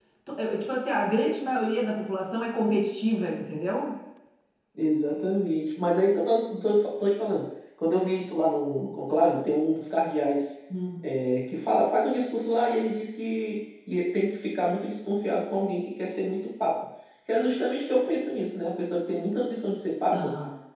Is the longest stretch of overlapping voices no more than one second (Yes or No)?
Yes